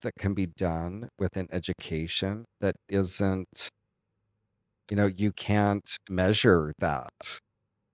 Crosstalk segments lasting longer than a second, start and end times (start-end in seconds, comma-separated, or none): none